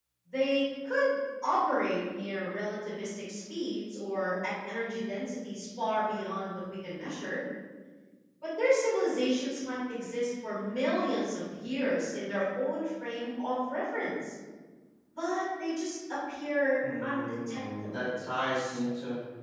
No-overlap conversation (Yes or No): No